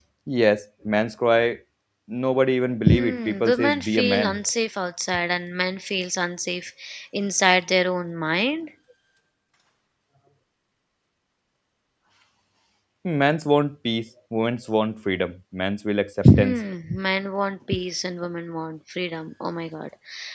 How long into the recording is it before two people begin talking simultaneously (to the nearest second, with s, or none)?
3 s